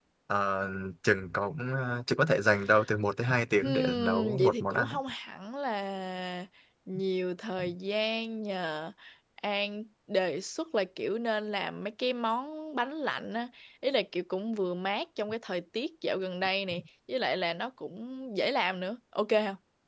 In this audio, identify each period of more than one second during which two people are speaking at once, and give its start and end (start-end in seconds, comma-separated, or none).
3.6-5.0